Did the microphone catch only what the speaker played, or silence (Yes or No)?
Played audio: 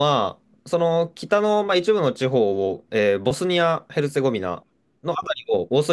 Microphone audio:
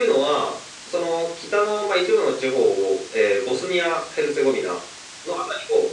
Yes